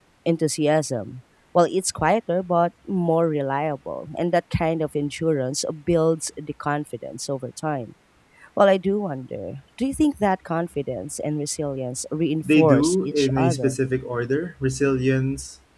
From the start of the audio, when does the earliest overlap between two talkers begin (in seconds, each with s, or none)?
12.4 s